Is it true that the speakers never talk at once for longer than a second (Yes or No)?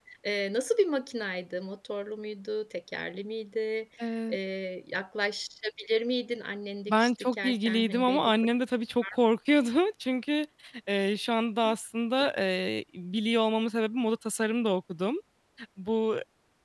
No